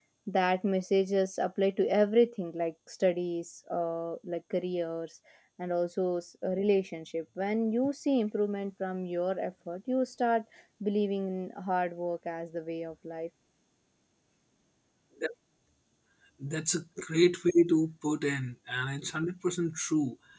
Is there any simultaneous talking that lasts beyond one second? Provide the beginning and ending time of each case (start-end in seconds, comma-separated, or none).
none